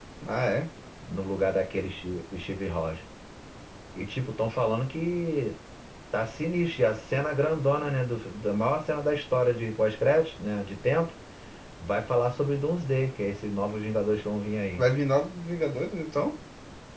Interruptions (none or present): none